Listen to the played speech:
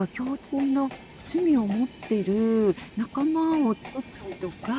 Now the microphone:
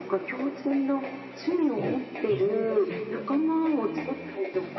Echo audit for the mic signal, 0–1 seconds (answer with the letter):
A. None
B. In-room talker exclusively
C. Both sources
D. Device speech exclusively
D